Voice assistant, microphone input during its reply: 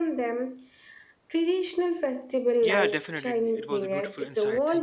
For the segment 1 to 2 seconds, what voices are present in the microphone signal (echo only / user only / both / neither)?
echo only